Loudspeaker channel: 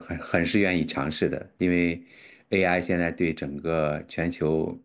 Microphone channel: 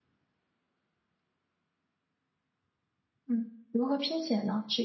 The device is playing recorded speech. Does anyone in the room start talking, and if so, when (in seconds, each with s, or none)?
3.2 s